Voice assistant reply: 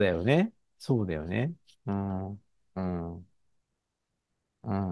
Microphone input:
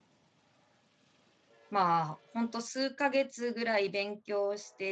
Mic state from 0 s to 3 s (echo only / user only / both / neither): user only